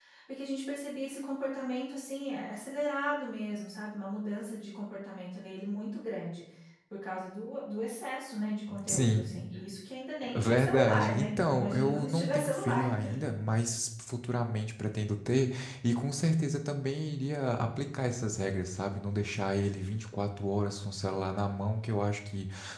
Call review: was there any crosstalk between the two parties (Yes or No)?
Yes